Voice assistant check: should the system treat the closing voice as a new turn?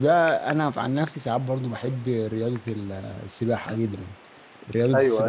No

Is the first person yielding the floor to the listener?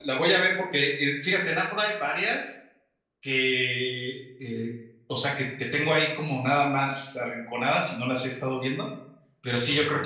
No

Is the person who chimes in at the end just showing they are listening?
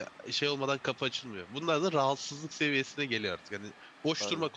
Yes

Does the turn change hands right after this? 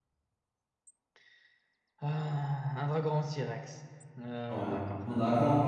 Yes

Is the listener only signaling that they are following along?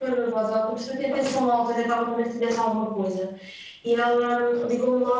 Yes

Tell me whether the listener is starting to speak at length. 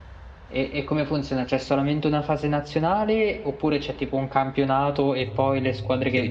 Yes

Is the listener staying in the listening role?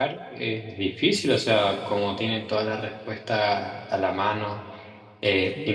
Yes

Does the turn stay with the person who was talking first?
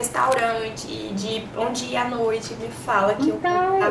No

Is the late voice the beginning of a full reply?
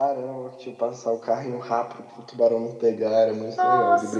Yes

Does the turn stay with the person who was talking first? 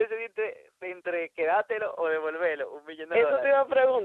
No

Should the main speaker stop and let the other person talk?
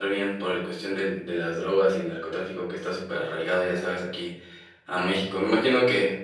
No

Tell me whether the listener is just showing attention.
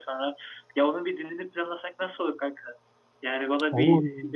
Yes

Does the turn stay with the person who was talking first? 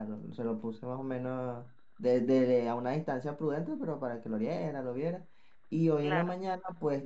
Yes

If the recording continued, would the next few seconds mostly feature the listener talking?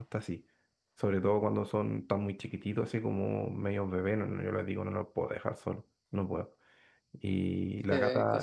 No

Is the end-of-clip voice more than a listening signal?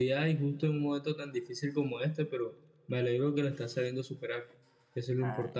Yes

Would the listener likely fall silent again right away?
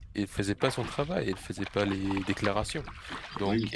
Yes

